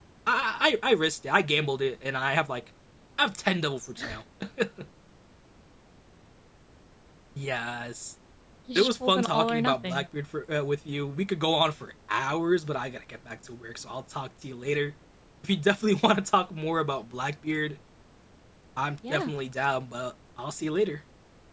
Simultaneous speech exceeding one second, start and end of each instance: 8.8-10.1

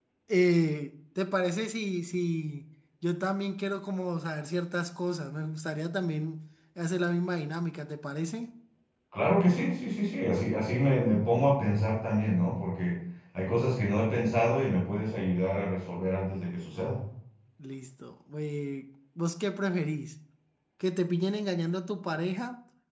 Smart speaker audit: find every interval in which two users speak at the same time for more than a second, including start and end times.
none

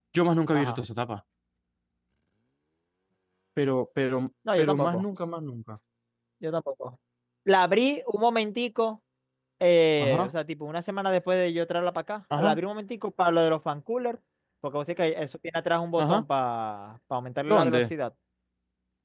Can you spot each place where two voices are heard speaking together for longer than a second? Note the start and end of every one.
none

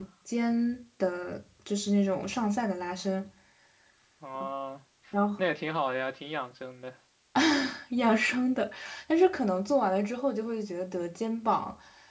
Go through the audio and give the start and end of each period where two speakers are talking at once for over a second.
none

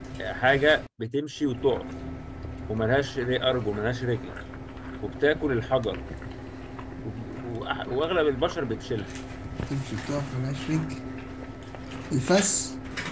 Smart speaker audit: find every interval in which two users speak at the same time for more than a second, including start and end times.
none

